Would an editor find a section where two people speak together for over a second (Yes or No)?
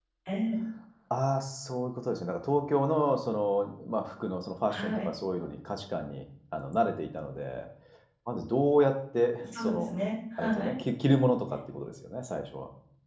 No